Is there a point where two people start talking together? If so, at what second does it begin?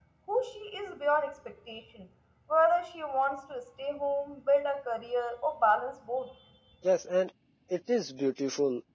none

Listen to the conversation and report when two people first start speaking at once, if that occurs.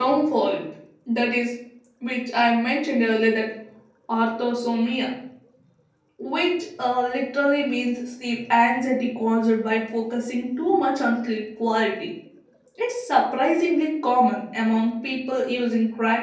none

